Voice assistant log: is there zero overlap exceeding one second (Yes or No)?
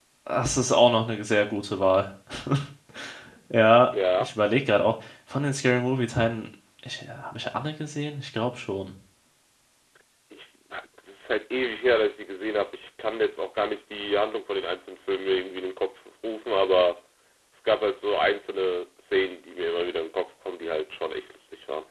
Yes